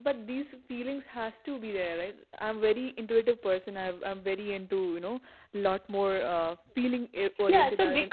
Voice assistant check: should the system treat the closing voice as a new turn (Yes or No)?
Yes